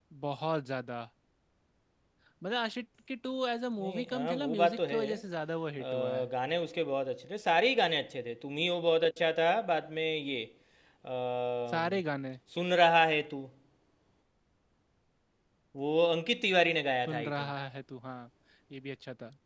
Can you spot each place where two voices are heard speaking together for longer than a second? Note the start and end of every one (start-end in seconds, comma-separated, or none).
3.8-5.2